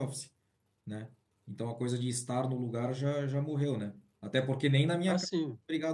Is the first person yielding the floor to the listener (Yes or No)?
No